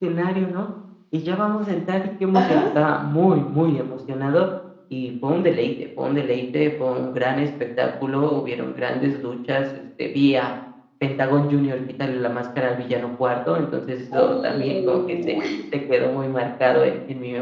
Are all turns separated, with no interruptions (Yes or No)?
No